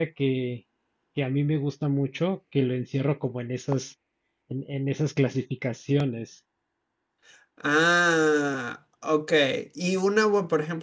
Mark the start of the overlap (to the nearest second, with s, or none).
none